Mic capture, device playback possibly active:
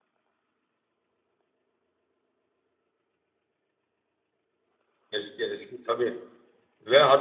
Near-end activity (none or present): present